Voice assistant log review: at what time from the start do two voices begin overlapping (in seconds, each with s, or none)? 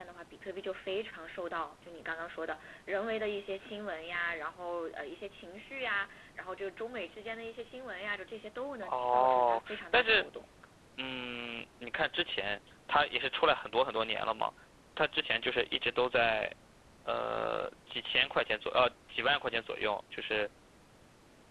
8.8 s